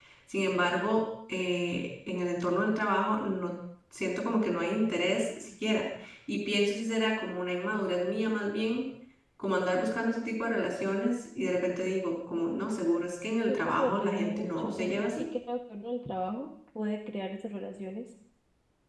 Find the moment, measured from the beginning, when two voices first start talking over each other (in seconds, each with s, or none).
13.5 s